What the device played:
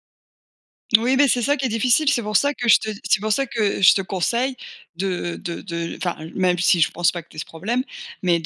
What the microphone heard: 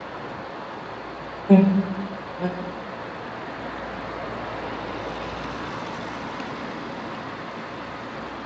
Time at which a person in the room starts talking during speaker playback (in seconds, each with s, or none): 1.5 s